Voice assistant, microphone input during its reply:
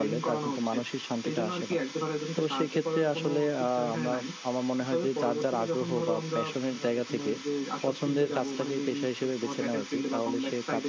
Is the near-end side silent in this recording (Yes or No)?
No